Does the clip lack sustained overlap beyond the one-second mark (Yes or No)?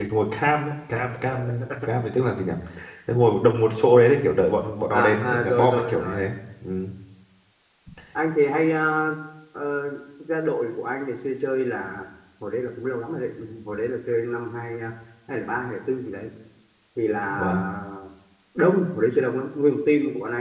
No